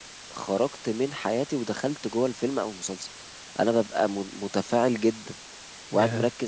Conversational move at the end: listening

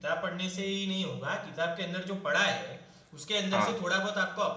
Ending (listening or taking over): listening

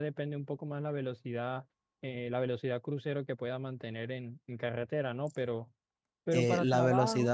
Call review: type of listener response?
taking over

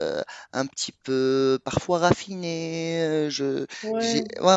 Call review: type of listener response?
taking over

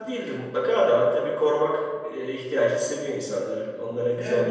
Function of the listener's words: taking over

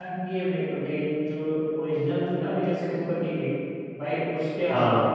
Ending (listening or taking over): listening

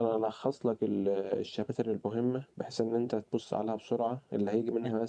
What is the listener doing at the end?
listening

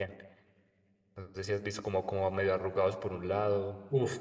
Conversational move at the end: taking over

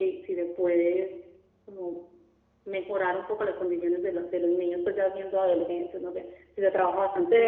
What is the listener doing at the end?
taking over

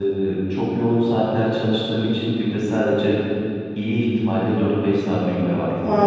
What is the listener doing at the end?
taking over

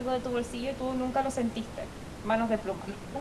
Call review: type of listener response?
taking over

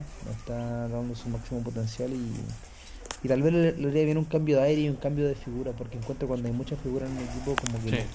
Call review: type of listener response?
listening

